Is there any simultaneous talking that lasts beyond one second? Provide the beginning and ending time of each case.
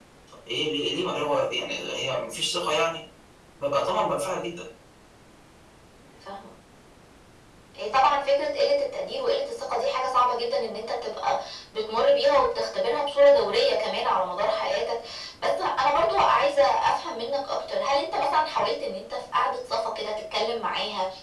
none

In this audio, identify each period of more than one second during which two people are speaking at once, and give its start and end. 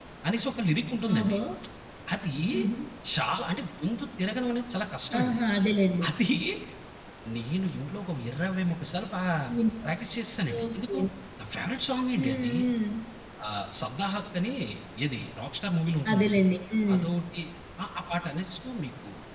none

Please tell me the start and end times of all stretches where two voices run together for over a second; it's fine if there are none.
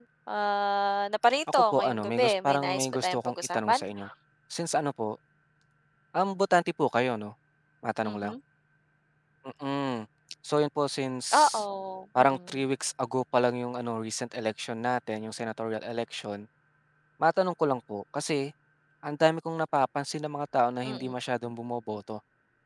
1.5-3.8

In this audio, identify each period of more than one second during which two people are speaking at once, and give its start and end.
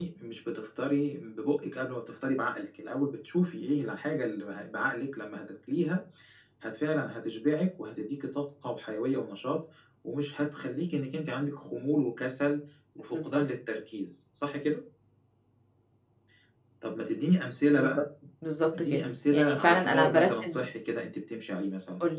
18.9-20.7

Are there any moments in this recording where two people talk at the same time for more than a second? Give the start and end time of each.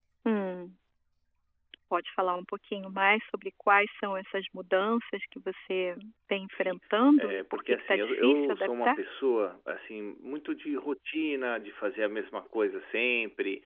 7.2-9.0

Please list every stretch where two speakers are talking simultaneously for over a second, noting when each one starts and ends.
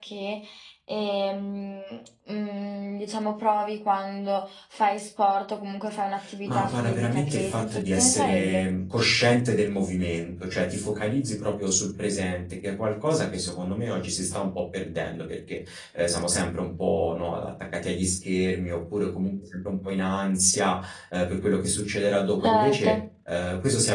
6.5-8.7

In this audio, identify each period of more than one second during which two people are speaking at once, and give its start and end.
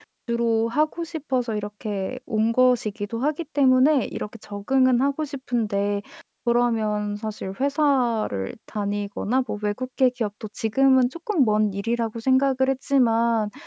none

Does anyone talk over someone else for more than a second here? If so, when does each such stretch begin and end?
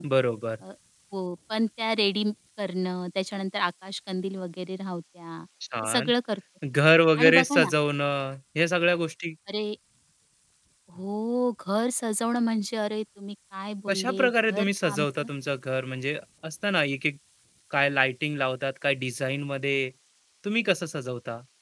13.9-15.3

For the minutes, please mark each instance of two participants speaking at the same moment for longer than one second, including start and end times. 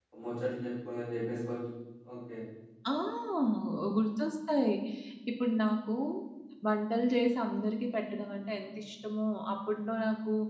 none

